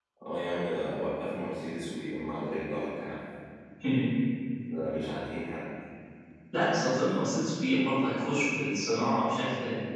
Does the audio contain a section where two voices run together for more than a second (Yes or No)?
No